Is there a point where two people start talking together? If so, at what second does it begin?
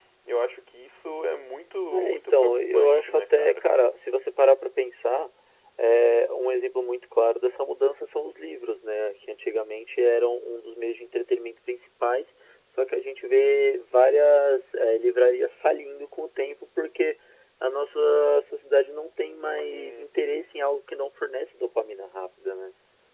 1.9 s

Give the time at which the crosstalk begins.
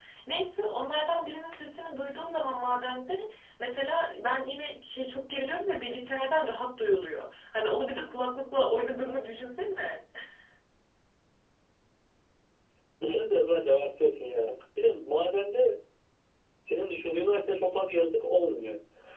none

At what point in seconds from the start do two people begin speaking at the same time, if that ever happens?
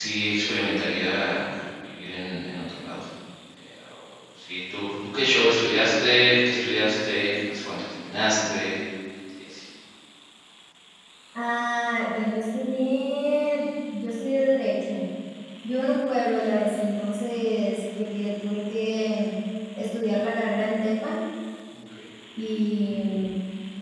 none

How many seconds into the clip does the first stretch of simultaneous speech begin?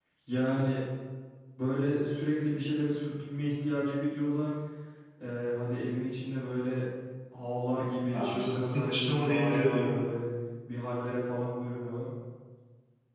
8.1 s

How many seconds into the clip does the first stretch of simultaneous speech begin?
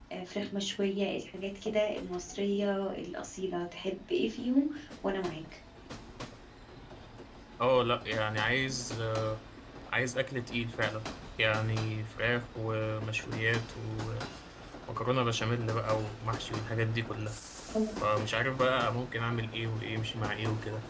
none

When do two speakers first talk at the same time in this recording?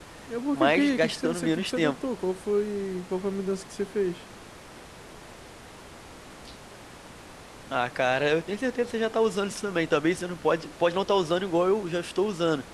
0.5 s

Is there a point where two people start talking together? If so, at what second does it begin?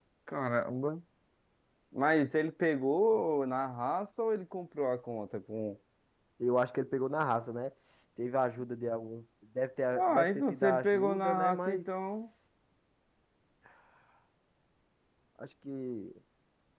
9.9 s

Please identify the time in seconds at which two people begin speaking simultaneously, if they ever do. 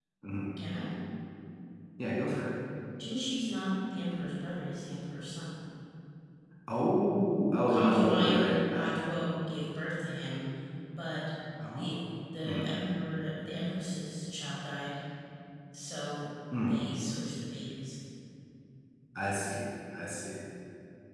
7.7 s

